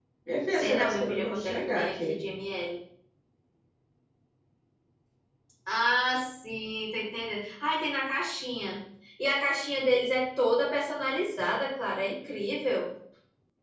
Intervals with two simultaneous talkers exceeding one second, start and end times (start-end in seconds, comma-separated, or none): 0.6-2.2